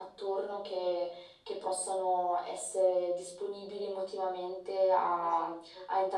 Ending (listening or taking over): listening